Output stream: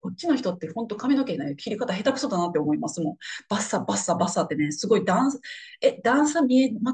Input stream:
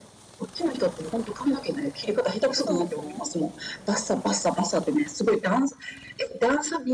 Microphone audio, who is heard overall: both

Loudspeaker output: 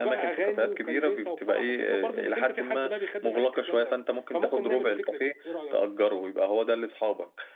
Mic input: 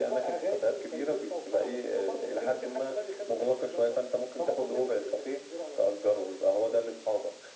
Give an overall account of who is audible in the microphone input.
echo only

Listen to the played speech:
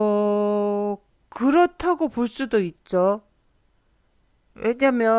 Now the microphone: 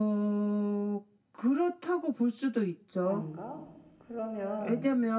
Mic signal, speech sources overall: both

